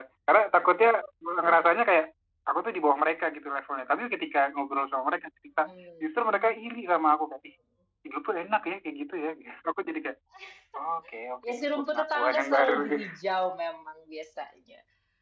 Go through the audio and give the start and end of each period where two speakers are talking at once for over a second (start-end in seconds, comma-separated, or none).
11.5-13.1